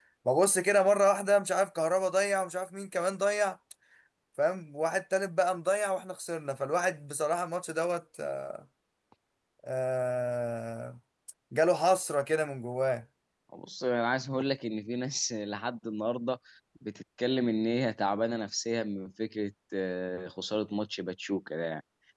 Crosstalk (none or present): none